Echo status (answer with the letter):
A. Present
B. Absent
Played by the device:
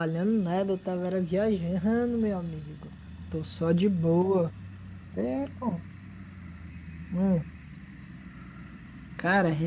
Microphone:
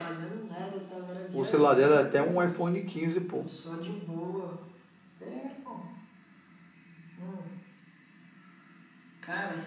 A